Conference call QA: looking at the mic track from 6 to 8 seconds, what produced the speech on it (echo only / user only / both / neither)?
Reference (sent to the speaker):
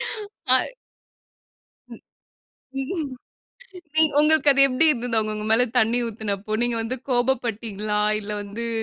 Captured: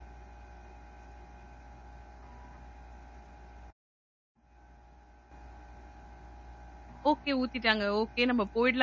user only